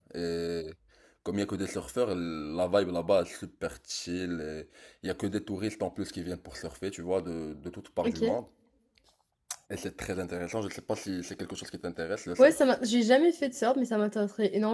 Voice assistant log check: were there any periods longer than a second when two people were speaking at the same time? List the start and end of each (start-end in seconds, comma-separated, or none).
none